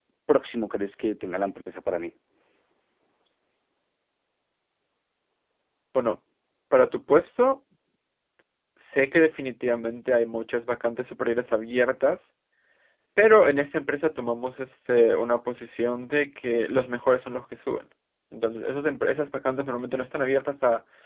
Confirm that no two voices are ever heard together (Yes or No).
Yes